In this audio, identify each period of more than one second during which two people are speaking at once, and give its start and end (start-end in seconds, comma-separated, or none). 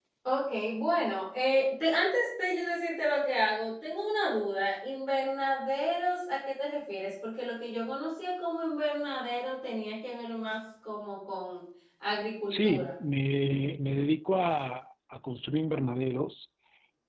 none